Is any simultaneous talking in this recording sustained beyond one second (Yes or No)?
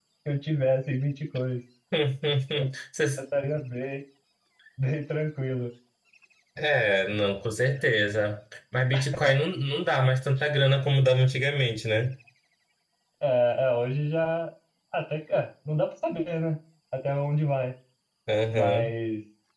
No